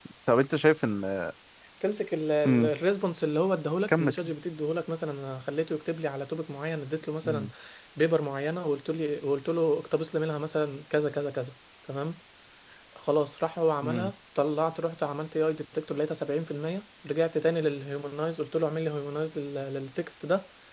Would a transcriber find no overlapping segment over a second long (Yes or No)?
Yes